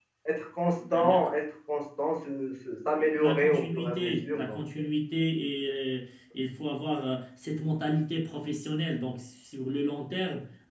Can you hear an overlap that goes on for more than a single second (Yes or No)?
Yes